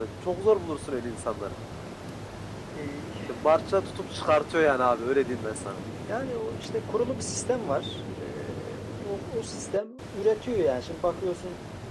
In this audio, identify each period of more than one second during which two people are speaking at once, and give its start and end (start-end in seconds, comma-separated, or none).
none